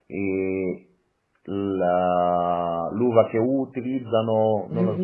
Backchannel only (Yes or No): No